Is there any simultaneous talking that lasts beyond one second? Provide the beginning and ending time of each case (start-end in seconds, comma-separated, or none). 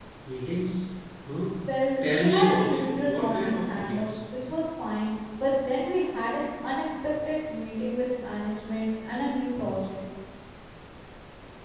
2.1-4.1